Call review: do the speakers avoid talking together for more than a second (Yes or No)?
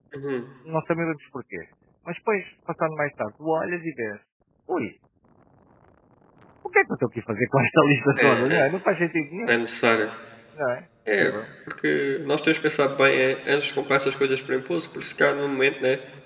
Yes